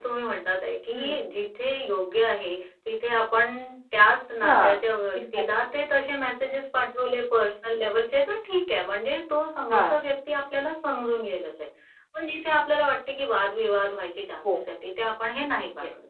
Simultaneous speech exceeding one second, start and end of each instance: none

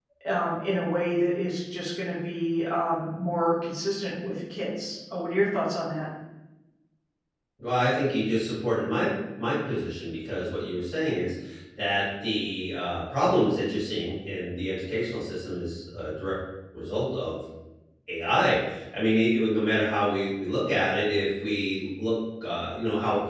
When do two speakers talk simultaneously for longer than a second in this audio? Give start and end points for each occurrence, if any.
none

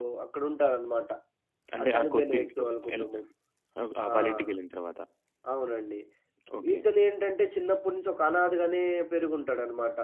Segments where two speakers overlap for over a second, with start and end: 1.8-3.1

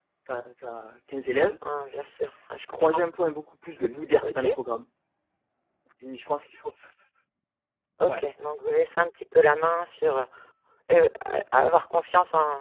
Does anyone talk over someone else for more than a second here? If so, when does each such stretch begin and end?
none

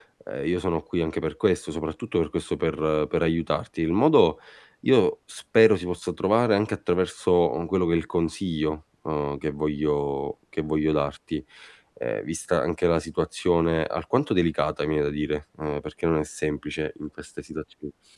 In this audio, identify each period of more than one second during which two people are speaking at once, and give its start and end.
none

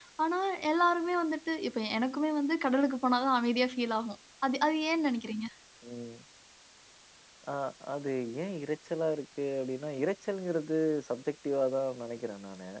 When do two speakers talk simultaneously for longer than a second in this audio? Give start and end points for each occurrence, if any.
none

